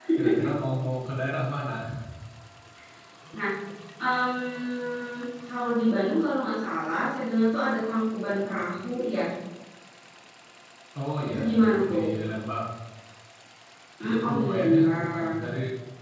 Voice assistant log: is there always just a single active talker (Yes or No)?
No